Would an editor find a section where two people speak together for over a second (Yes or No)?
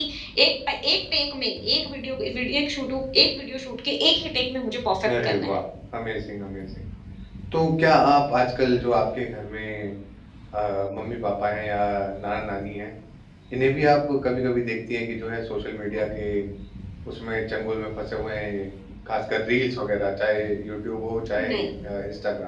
No